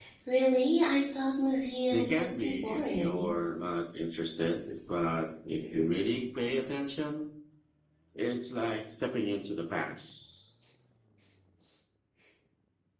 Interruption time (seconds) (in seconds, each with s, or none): 1.9 s